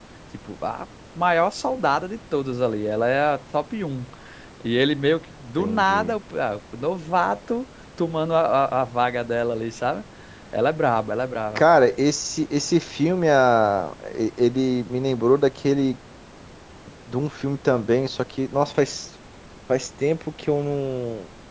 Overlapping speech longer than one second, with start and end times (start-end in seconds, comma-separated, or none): none